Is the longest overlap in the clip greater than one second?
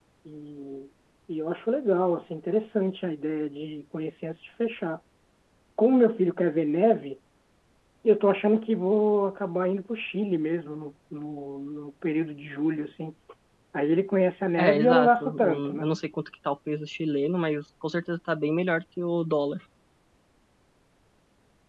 Yes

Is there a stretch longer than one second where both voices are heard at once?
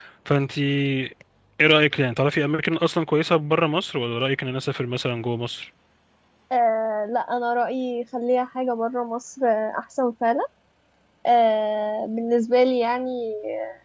No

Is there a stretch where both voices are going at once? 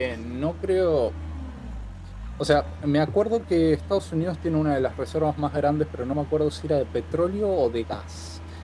No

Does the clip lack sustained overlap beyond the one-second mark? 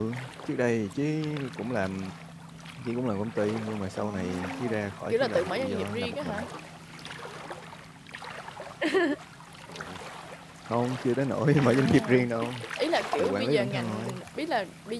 No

